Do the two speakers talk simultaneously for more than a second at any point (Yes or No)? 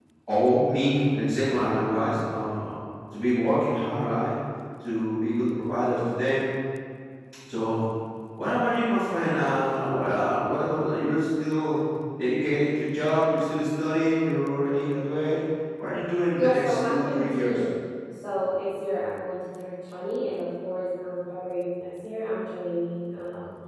Yes